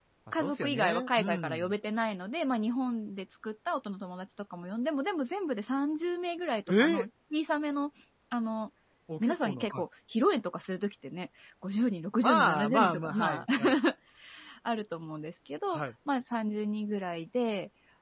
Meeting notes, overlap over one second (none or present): present